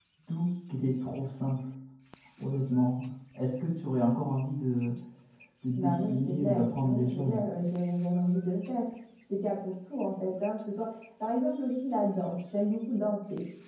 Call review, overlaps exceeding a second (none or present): present